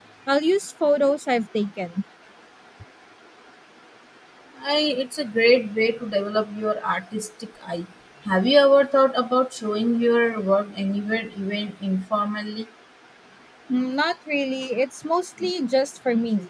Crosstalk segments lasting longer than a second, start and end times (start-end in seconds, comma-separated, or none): none